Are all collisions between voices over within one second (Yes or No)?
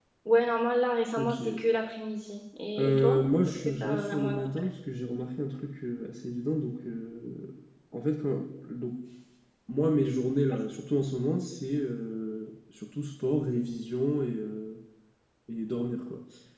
No